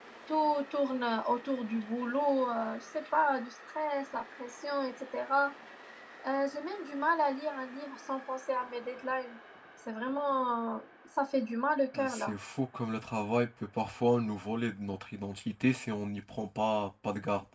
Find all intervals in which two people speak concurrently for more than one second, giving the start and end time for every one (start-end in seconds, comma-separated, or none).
none